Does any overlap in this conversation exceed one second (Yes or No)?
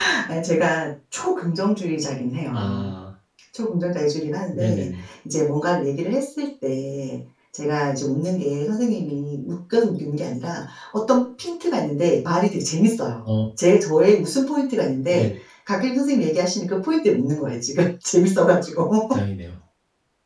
No